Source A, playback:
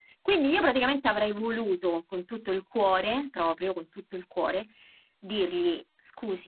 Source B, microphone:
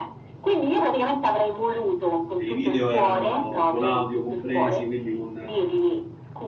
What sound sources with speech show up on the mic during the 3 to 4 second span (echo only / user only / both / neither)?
both